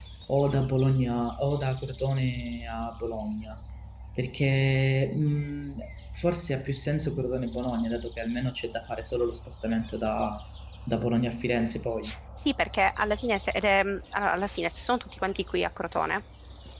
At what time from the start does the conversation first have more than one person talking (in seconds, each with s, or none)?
none